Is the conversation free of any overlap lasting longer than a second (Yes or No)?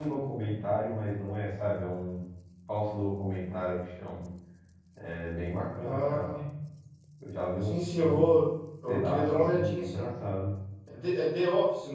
No